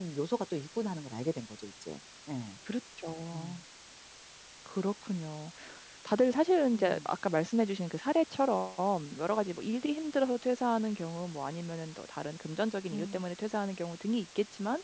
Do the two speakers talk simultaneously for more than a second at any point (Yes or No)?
No